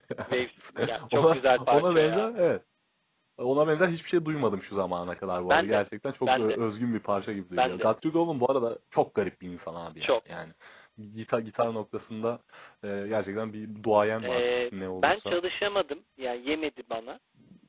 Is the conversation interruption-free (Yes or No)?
No